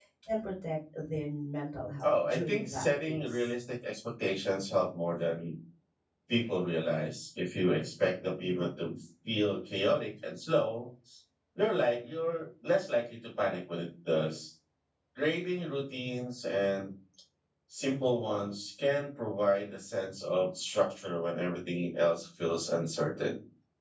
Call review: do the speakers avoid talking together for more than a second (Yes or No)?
No